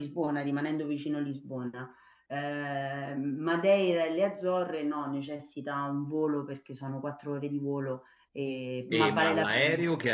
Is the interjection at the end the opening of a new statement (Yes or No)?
Yes